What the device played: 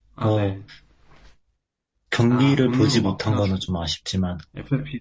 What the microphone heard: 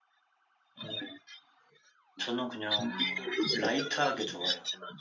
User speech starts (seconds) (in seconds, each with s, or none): 2.2 s